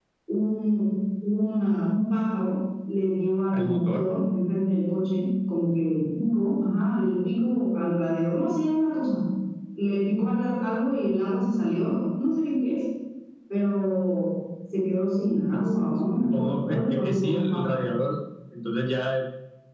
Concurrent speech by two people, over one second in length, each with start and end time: 16.2-17.8

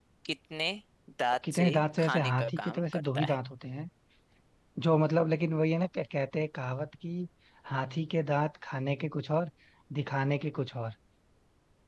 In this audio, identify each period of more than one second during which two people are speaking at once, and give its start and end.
1.5-3.4

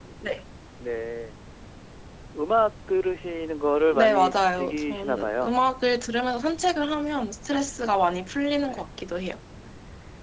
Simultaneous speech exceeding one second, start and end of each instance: 4.0-5.5

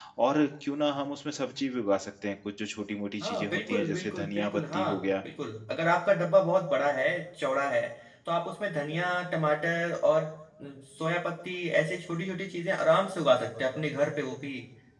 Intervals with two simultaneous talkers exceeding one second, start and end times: 3.2-4.9

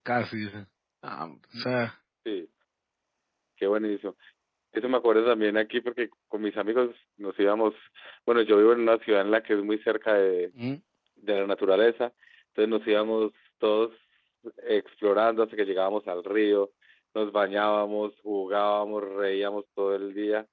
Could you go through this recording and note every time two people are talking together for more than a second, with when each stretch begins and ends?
none

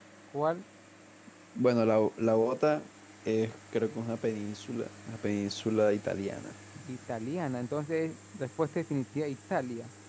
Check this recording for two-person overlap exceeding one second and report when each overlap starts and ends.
none

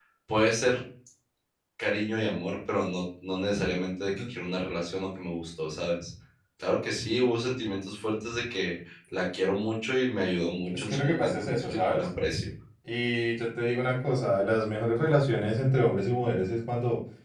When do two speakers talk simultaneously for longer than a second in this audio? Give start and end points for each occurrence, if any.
10.7-12.1

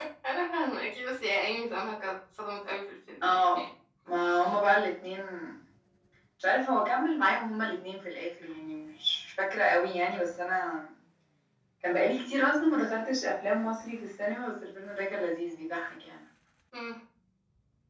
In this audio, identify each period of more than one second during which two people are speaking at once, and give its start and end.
none

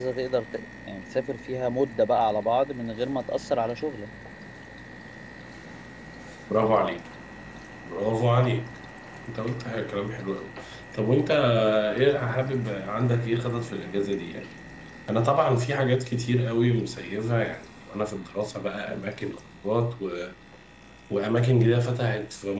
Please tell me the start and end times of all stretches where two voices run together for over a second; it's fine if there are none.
none

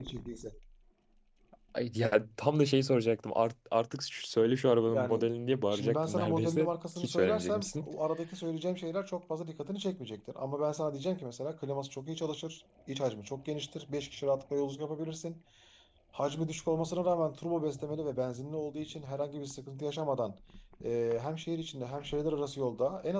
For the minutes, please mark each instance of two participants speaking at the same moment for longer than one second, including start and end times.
5.7-7.9

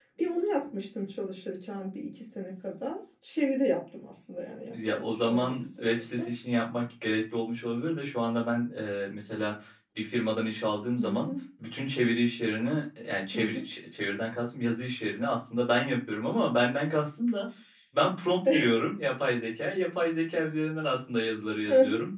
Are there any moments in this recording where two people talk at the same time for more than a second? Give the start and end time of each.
4.7-6.3

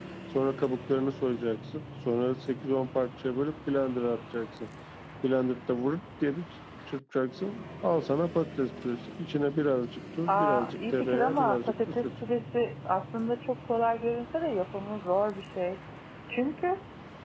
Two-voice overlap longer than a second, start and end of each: 10.3-12.1

